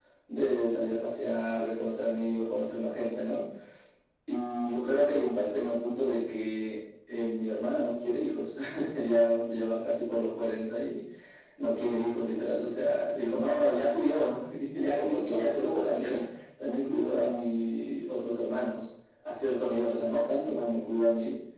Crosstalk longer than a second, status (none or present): present